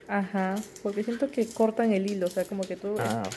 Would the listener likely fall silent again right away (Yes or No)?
Yes